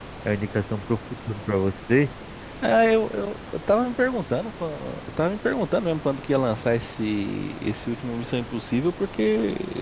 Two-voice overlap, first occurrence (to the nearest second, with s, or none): none